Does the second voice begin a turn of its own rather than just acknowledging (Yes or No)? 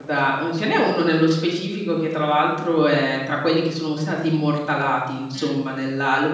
No